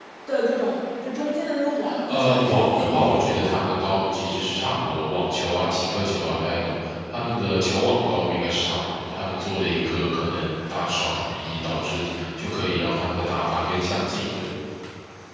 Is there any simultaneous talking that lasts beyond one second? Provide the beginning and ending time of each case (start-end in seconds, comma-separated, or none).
2.1-3.4